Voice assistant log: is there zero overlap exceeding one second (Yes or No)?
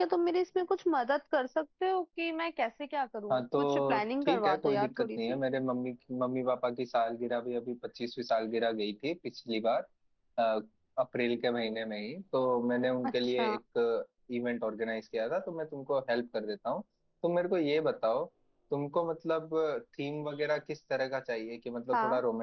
No